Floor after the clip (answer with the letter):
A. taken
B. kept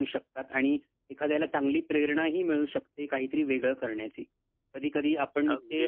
B